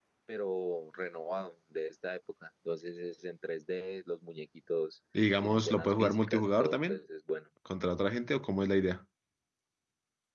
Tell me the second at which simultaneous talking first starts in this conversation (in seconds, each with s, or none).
5.4 s